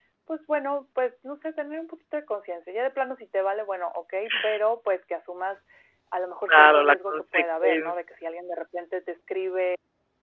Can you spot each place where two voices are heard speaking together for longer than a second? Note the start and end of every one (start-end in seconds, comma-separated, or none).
6.5-7.9